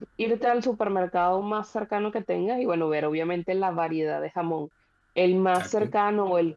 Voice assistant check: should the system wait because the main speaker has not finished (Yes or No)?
Yes